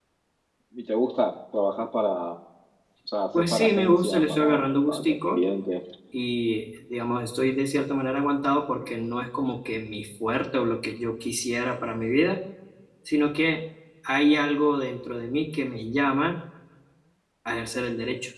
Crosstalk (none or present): present